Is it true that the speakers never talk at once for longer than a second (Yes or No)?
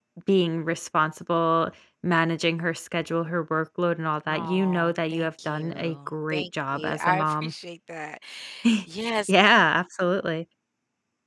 No